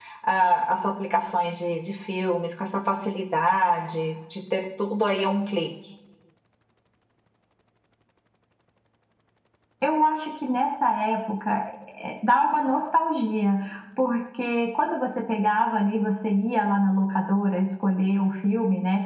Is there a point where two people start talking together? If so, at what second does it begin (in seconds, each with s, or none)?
none